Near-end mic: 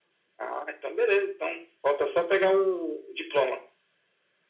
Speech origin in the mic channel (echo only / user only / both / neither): echo only